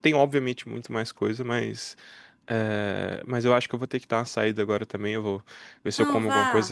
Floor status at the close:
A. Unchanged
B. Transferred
A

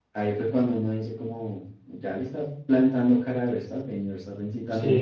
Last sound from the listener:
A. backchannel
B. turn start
B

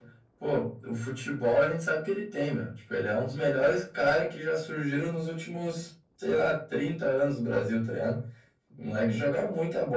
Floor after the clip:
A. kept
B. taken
A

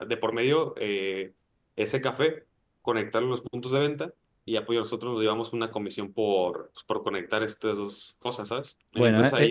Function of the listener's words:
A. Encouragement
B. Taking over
B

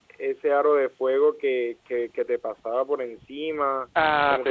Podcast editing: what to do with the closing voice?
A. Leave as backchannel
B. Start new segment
A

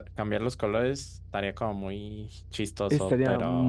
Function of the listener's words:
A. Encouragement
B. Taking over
B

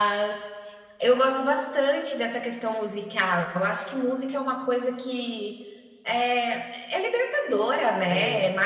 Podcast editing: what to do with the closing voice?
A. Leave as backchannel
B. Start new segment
A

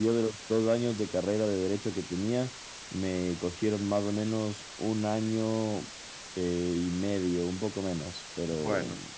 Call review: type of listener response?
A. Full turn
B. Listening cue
B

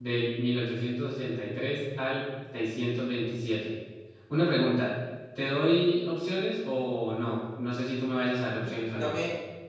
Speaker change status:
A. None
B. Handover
B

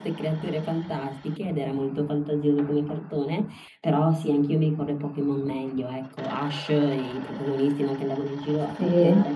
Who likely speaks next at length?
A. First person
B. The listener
A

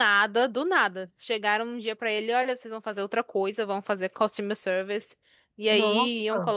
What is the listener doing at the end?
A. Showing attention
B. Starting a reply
A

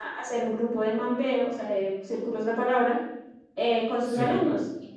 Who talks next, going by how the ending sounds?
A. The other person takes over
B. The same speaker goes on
B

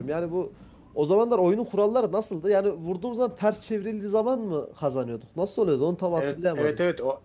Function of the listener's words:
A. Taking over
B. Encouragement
A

